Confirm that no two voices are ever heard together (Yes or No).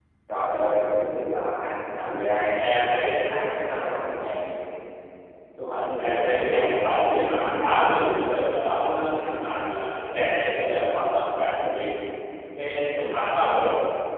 No